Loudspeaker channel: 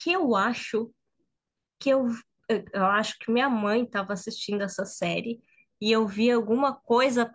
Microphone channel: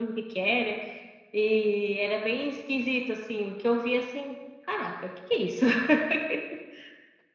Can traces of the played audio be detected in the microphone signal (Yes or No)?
No